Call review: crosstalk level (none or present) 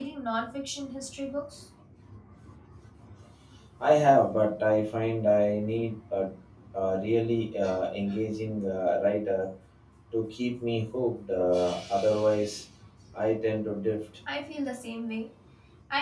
none